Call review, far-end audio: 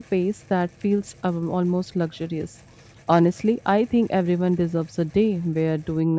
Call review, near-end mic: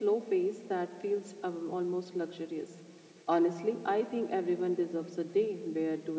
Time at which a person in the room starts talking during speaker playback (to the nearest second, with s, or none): none